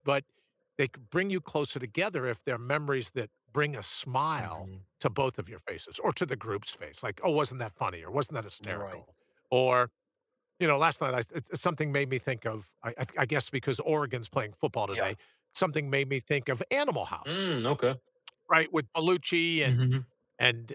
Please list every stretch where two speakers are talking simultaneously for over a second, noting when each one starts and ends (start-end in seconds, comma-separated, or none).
none